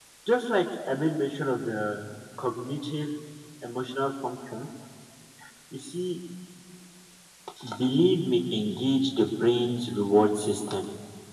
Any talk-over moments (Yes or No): No